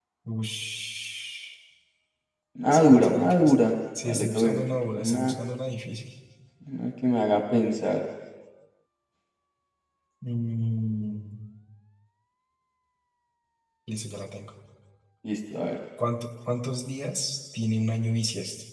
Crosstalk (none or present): present